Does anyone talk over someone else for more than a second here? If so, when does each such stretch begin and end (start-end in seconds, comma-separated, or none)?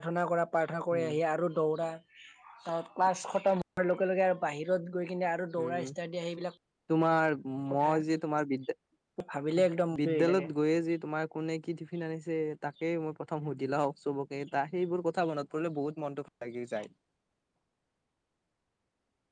none